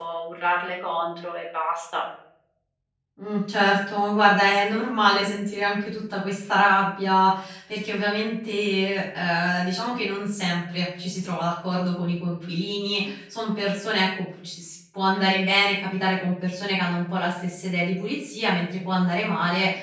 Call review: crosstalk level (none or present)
none